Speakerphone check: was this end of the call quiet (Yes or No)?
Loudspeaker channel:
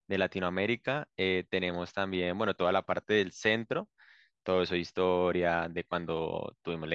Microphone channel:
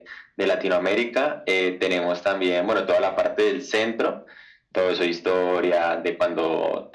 Yes